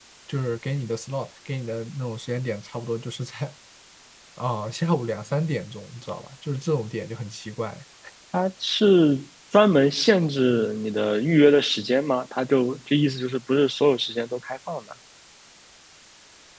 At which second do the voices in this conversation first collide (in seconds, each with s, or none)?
none